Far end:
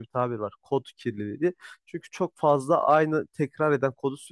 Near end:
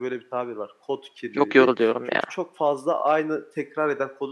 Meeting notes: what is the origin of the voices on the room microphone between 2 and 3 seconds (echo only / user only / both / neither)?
both